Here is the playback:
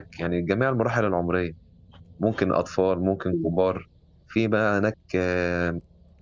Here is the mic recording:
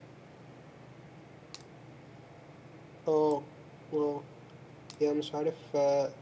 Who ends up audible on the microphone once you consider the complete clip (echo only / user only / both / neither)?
user only